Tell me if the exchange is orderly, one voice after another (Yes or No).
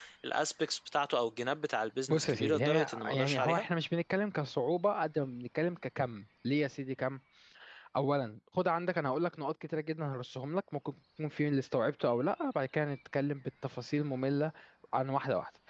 No